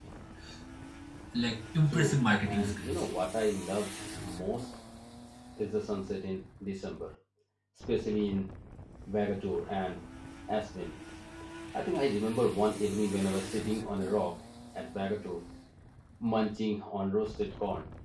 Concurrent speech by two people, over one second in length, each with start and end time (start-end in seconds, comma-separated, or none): 1.8-3.1